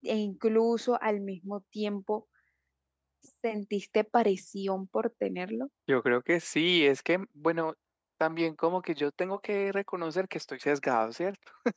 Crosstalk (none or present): none